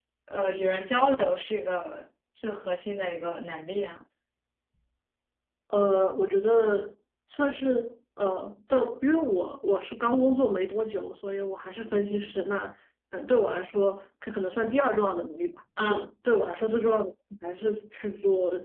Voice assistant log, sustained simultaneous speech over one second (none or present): none